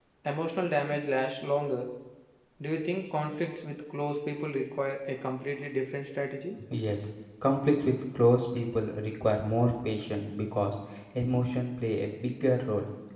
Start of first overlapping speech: none

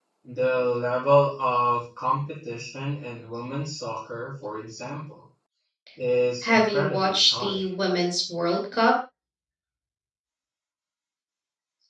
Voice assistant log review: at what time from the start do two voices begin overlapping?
6.4 s

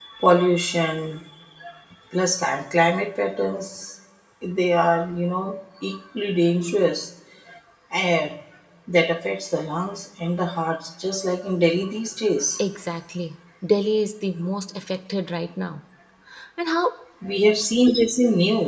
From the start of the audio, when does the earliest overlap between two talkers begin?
none

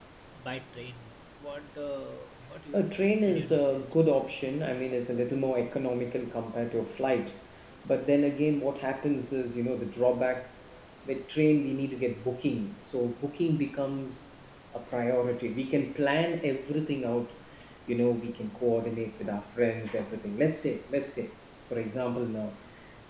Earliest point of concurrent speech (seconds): 2.7 s

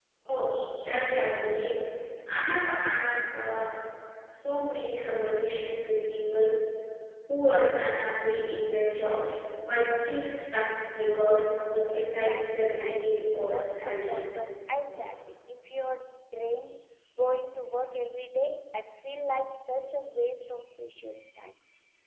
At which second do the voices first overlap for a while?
11.9 s

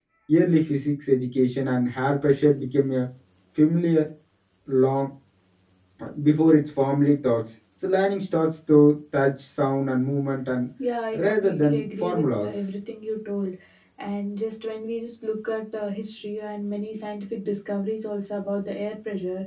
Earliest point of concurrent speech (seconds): 11.1 s

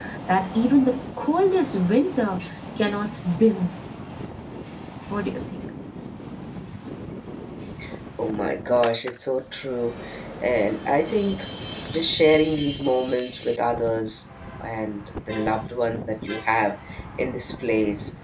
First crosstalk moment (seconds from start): none

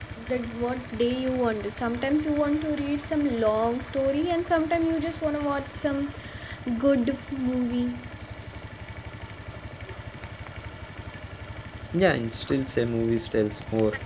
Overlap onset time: none

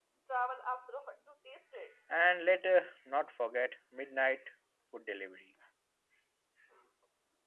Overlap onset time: none

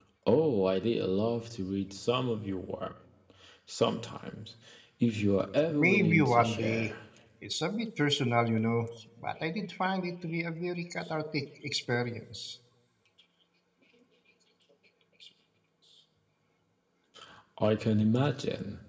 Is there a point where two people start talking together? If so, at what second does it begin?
5.7 s

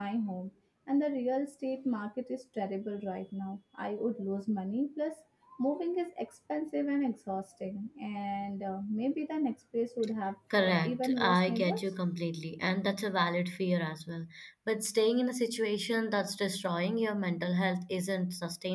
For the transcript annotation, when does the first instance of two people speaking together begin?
10.5 s

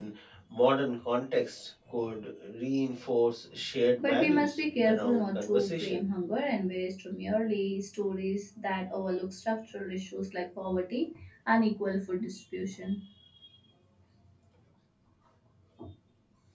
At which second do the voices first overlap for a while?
4.0 s

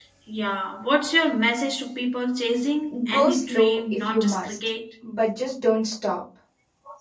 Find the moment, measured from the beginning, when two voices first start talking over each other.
2.9 s

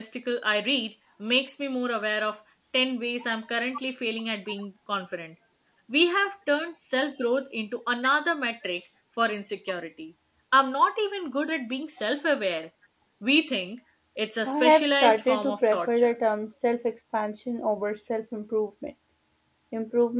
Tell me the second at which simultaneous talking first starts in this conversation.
14.5 s

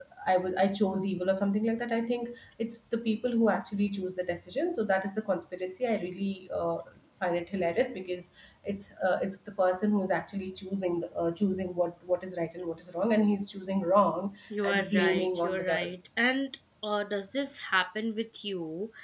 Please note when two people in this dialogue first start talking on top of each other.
14.5 s

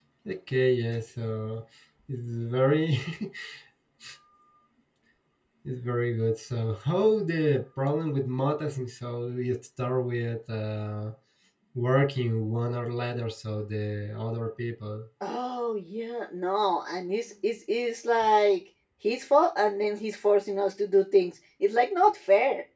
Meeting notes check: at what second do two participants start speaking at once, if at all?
none

